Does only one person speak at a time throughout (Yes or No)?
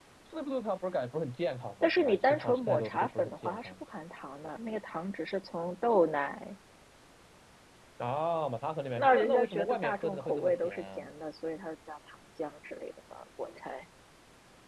No